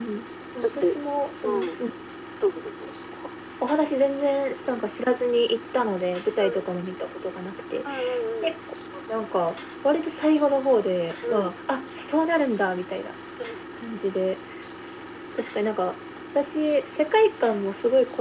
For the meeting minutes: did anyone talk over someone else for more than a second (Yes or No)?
No